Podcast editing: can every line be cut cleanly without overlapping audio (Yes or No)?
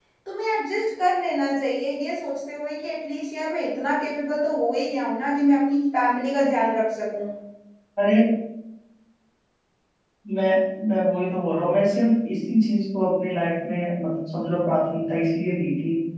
Yes